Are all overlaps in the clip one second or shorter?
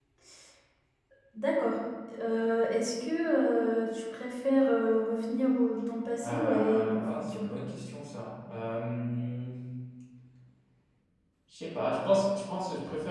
No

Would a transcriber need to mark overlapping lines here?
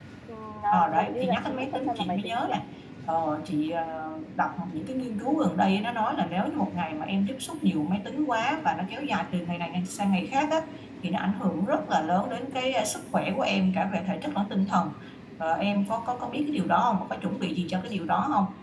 Yes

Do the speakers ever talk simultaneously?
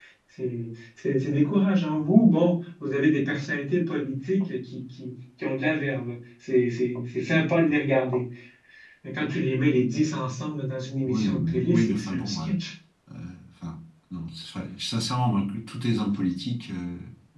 Yes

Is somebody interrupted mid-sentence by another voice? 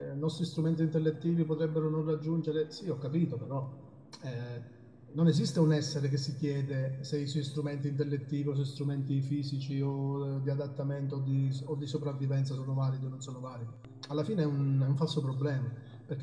No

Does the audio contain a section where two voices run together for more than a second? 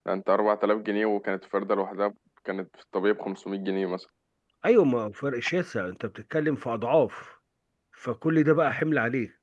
No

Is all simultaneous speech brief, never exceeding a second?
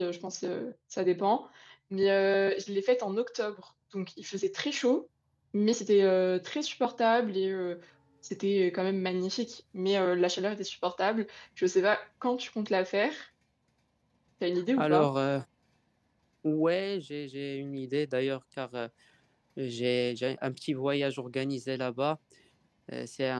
Yes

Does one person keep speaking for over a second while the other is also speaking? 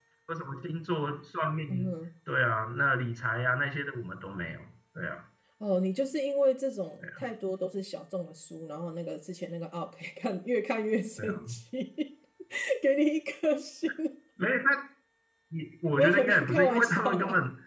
Yes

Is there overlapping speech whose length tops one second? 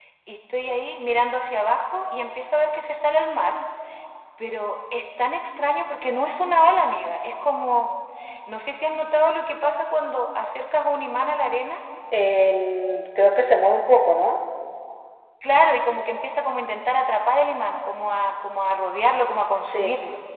No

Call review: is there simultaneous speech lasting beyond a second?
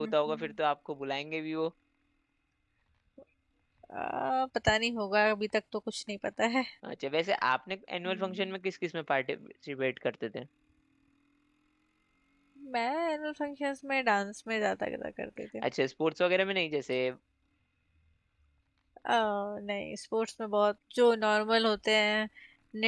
No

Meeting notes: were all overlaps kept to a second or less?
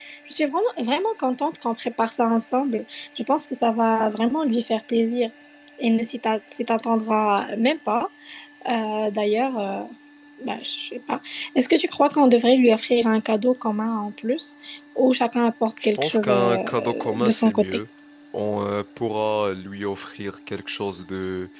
No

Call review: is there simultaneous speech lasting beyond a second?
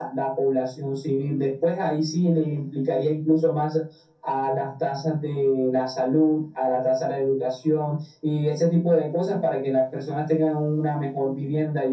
No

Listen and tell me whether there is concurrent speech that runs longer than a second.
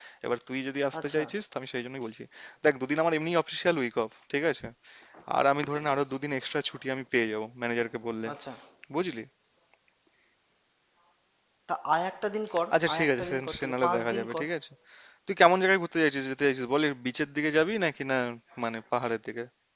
Yes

